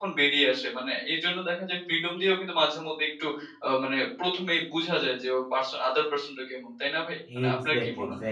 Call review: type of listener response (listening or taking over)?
taking over